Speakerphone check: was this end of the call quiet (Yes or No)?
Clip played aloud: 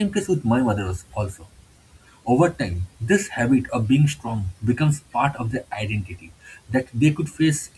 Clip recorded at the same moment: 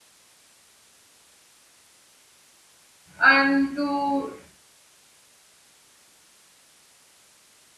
No